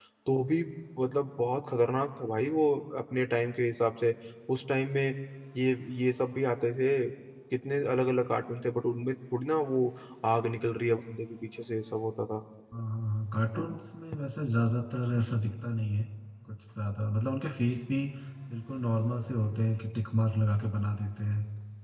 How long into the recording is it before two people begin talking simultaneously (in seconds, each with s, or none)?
none